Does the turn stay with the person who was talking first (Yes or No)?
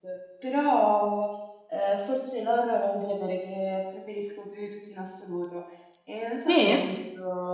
Yes